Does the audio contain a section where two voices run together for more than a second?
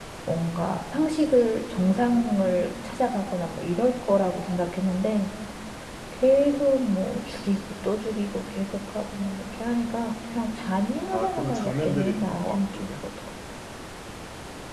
Yes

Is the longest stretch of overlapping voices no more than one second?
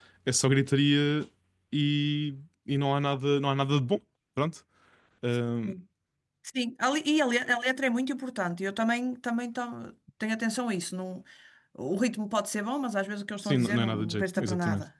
No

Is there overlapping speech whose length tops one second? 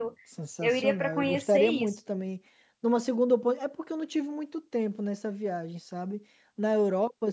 Yes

